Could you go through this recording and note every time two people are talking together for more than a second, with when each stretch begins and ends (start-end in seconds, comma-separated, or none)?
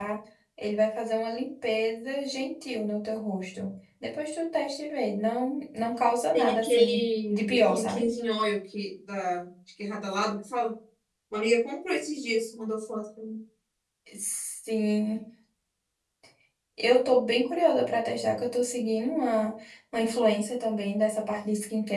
6.3-8.0